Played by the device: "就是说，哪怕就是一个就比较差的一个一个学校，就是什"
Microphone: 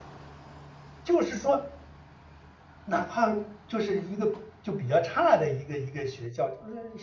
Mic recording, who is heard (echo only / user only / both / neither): echo only